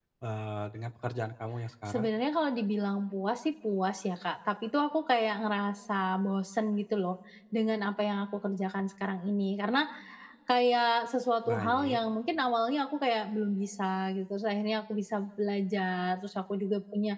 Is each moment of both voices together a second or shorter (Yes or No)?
Yes